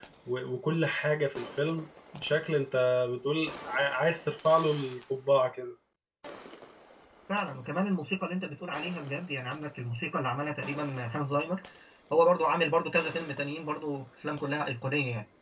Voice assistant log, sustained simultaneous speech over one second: none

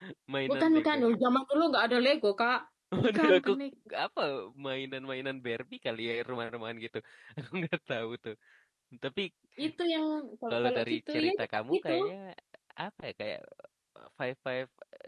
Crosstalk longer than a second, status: present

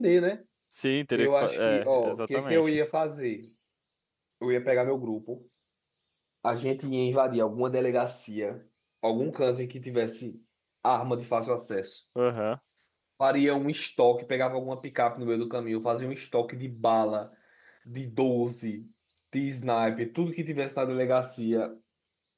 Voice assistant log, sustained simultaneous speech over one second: present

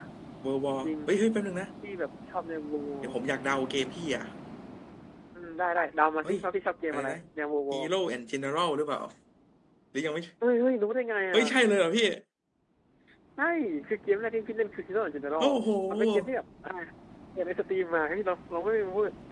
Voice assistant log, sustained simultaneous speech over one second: none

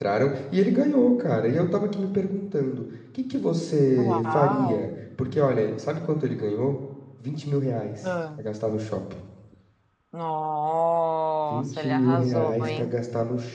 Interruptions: present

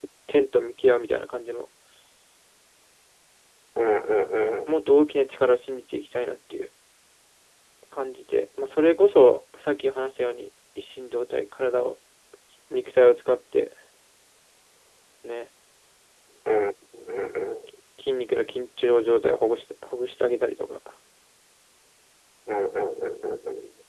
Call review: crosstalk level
none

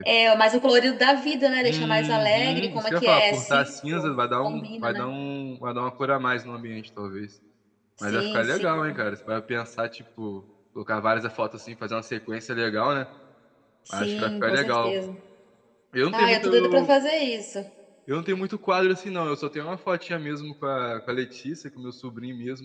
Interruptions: present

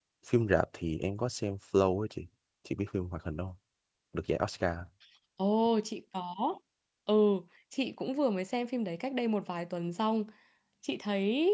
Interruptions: none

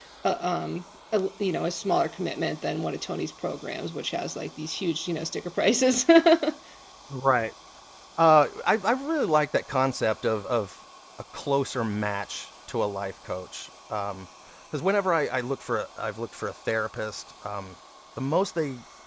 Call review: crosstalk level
none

